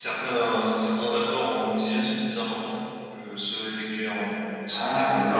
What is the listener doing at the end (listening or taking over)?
taking over